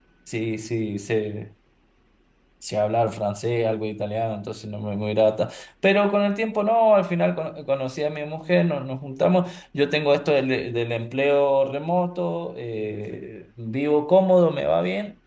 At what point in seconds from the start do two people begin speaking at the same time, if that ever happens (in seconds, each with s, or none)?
none